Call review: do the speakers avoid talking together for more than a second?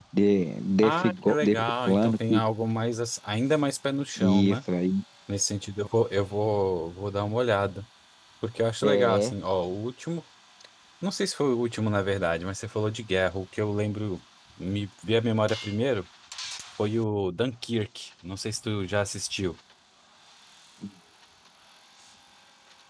No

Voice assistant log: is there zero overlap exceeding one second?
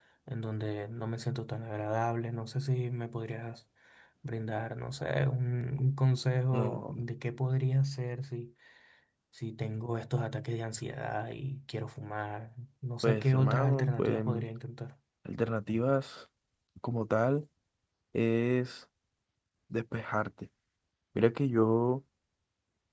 No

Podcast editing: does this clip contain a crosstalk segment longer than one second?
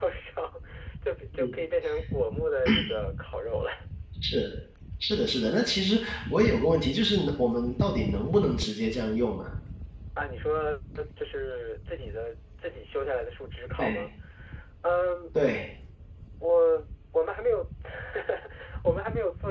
No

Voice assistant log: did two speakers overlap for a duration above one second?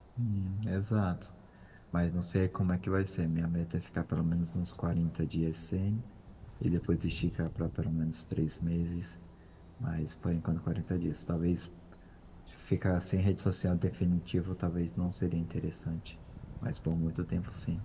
No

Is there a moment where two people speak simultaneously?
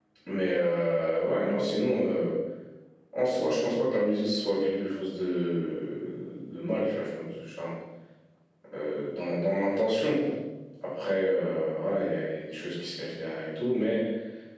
No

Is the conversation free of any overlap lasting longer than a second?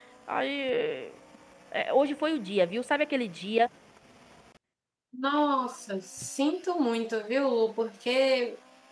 Yes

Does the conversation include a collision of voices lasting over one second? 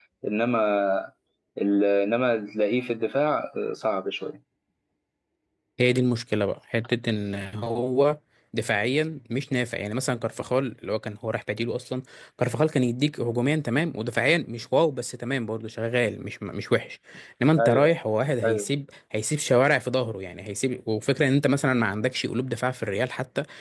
No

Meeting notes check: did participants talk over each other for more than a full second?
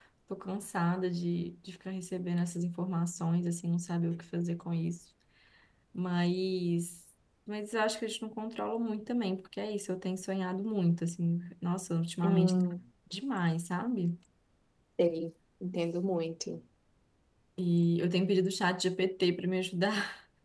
No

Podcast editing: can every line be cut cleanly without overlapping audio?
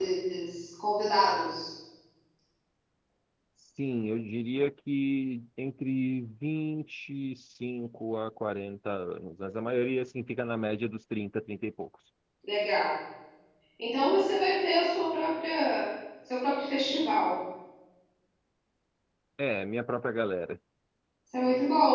Yes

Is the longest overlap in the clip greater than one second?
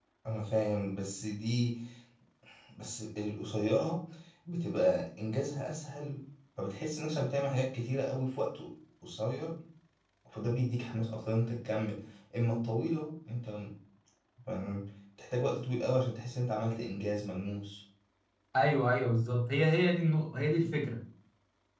No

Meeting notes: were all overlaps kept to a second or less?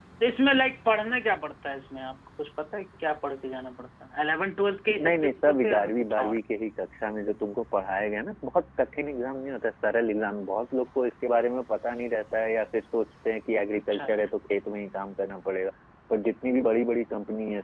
No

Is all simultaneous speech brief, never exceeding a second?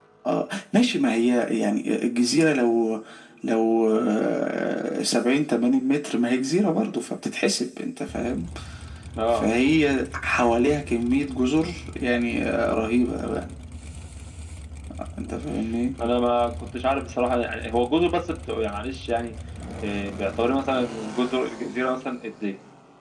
Yes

